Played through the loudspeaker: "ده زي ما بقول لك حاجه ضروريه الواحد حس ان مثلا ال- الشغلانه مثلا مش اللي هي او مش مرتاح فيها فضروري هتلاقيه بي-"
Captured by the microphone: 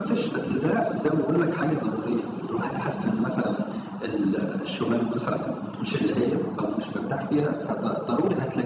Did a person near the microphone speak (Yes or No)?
No